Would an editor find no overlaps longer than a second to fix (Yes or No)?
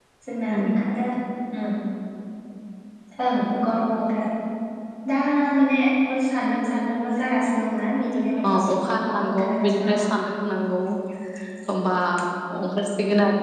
No